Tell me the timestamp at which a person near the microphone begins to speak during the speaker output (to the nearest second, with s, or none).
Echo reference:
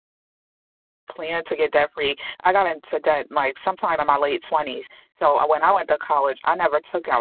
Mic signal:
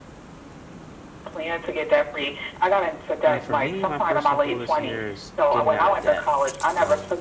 3 s